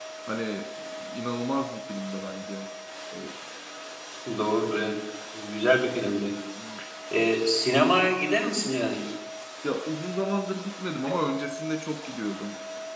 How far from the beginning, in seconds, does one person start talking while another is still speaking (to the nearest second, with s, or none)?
none